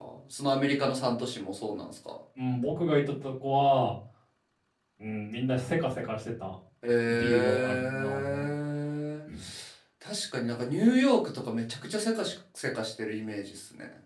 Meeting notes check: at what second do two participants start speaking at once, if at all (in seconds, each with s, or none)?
7.1 s